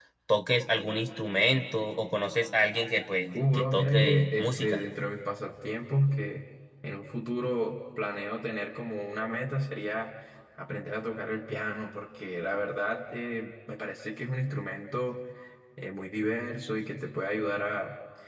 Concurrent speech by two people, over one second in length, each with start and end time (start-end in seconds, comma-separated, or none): 3.3-4.8